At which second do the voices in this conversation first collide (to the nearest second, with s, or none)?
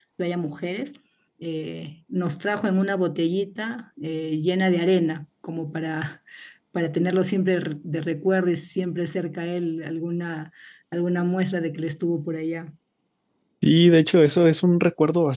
none